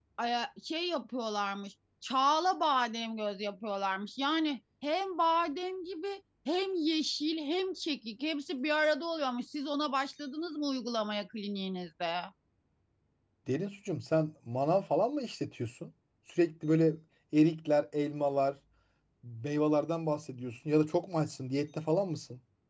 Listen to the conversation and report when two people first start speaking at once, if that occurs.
none

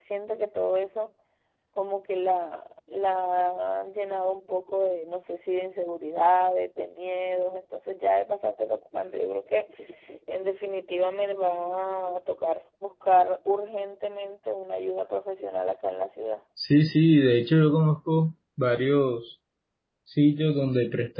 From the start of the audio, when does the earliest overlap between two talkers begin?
none

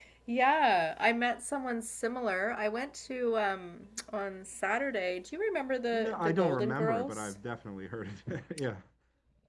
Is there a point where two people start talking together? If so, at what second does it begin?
6 s

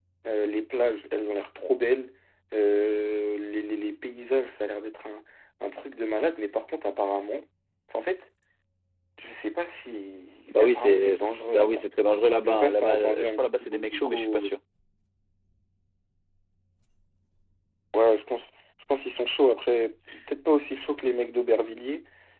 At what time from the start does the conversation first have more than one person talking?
10 s

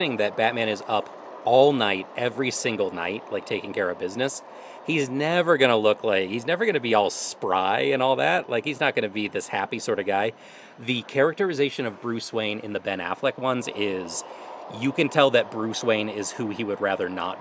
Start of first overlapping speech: none

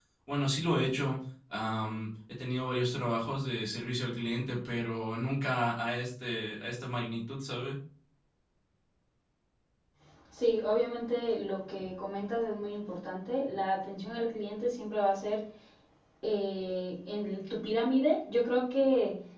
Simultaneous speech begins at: none

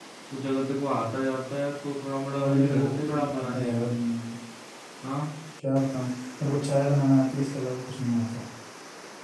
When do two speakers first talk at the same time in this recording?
2 s

